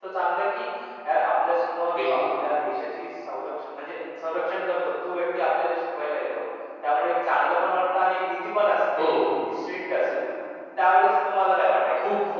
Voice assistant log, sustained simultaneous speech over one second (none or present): none